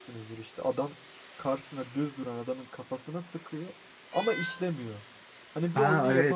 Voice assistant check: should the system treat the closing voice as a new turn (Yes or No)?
Yes